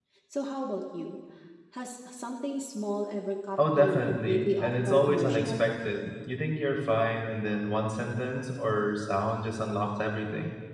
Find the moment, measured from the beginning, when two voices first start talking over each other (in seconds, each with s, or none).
3.6 s